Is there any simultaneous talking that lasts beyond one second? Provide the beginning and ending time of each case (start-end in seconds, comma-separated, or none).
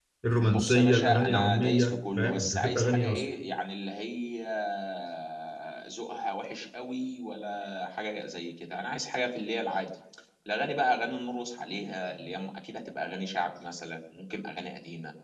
0.6-3.2